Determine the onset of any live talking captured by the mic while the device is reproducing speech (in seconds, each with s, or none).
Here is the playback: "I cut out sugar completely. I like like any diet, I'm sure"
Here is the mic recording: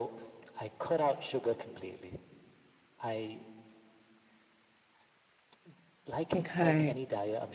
6.3 s